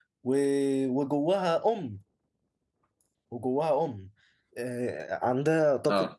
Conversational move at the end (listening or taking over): listening